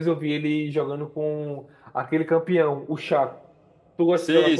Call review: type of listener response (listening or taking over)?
taking over